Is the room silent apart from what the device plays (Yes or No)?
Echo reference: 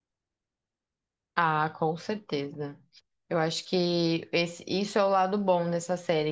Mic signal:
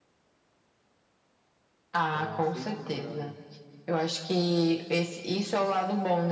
No